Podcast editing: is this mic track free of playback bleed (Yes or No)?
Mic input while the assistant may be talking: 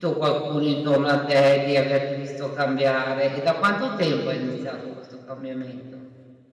Yes